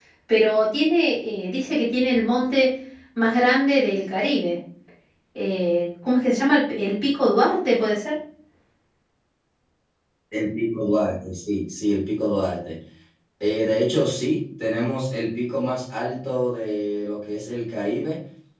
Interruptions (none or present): none